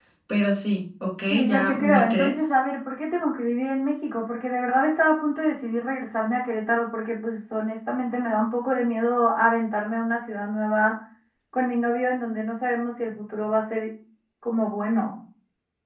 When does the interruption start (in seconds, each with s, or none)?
1.3 s